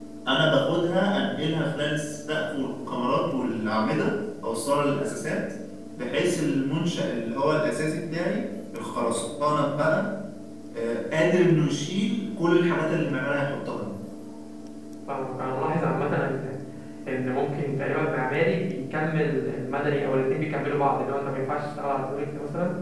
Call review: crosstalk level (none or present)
none